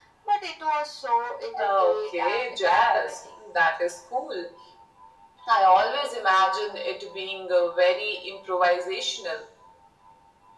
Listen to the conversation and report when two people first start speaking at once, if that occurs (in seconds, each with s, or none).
1.5 s